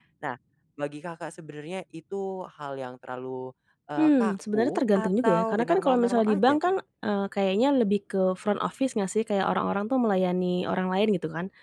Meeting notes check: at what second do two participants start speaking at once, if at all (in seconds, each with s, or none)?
4.0 s